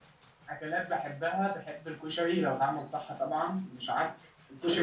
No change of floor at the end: No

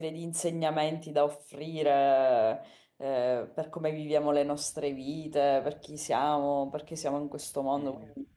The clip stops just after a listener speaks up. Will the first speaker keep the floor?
Yes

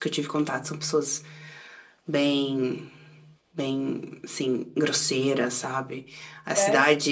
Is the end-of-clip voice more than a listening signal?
No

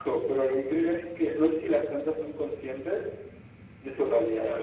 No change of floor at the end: No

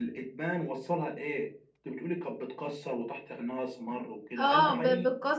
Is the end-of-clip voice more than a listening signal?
Yes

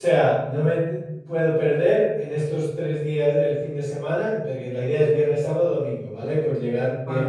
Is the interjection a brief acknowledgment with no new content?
Yes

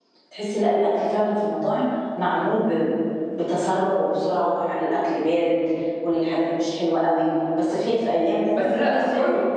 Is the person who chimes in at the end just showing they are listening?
No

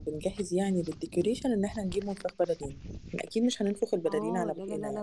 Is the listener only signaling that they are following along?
No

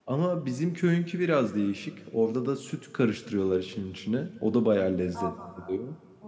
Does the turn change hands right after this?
Yes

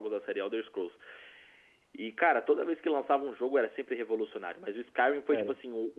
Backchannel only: Yes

